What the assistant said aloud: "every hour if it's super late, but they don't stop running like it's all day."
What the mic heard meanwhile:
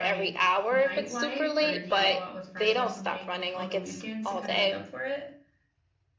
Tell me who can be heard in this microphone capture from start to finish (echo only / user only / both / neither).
both